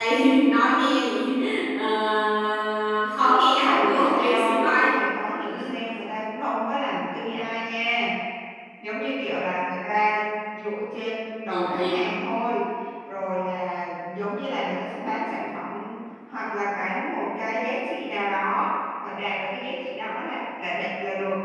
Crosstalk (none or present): present